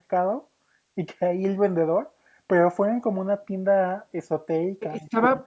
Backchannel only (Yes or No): No